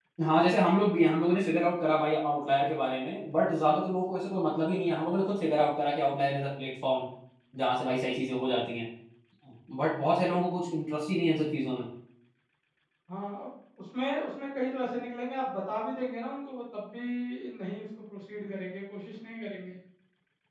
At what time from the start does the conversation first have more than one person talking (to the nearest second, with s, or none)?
none